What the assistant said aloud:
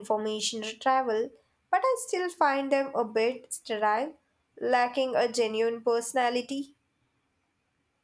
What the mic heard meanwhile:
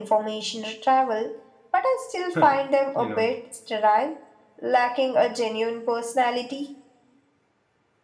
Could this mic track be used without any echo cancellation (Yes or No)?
No